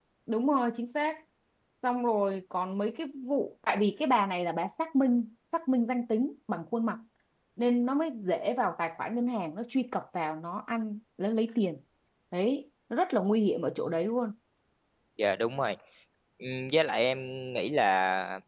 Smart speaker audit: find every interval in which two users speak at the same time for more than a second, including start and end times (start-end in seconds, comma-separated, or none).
none